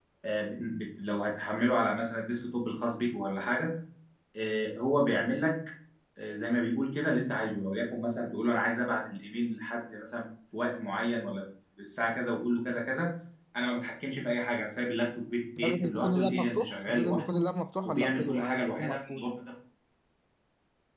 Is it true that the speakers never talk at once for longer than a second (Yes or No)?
No